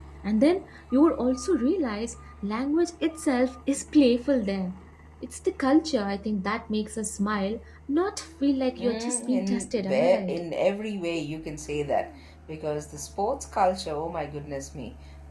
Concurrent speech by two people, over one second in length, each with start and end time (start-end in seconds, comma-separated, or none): 8.8-10.4